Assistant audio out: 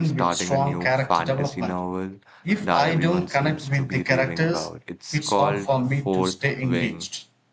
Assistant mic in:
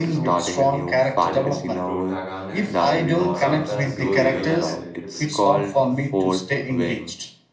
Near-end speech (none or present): present